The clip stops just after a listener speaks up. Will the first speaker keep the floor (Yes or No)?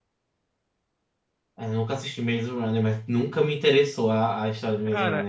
No